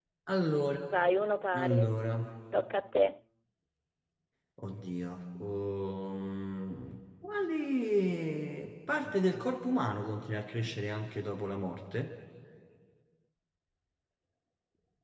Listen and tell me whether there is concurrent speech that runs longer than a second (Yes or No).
No